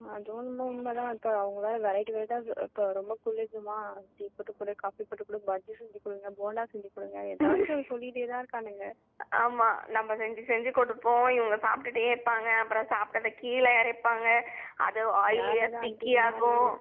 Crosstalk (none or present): present